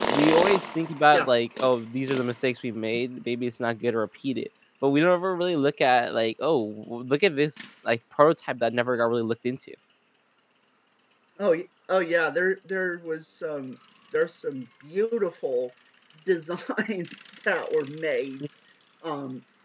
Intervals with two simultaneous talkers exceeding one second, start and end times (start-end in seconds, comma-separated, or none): none